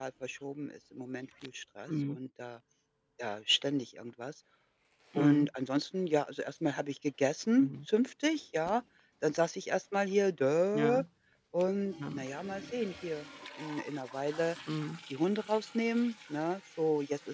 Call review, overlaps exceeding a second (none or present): none